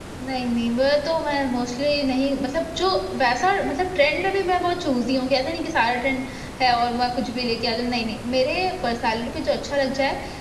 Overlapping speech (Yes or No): No